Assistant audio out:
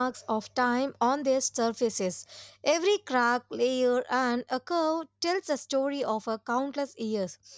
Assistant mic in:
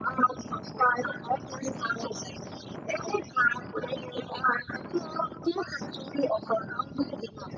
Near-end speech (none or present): none